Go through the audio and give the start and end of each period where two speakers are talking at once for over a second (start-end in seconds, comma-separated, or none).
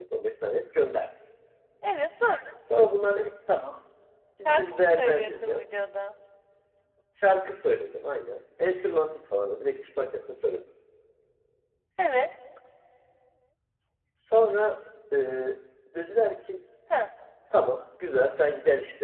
4.4-5.6